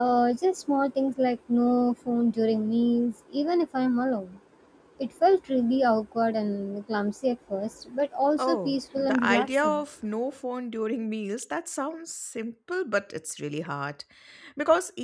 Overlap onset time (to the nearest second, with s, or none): 8 s